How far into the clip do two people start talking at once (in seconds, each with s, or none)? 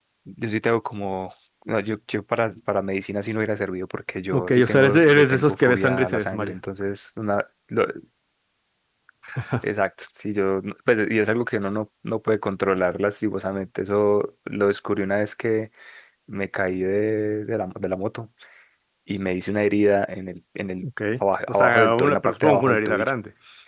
4.3 s